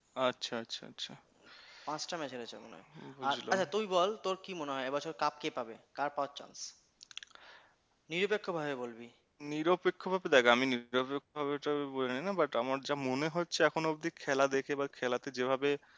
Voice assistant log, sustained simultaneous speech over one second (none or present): none